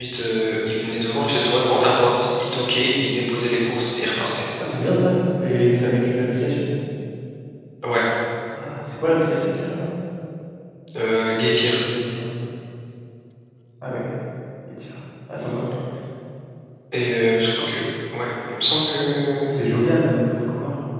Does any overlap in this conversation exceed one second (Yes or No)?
No